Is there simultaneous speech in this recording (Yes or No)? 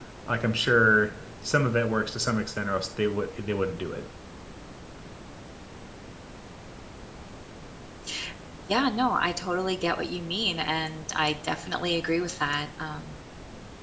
No